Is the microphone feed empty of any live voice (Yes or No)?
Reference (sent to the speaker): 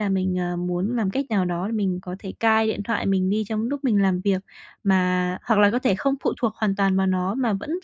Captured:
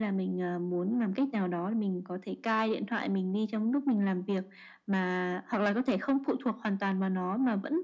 Yes